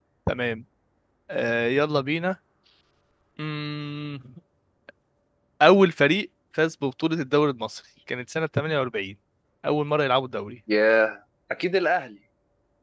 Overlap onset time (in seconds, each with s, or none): none